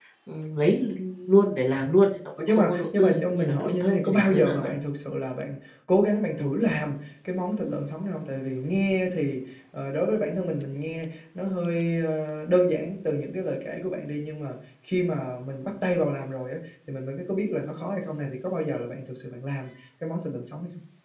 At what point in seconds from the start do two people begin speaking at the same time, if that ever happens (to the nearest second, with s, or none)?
2 s